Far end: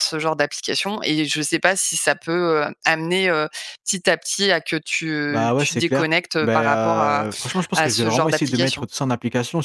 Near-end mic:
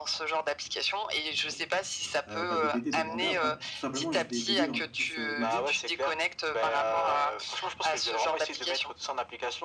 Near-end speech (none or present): present